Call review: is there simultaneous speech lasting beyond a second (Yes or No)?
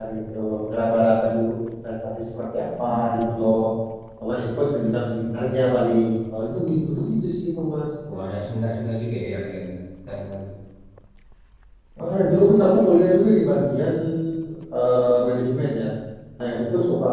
No